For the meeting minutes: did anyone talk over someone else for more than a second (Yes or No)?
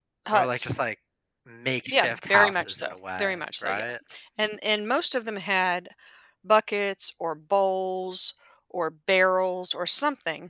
Yes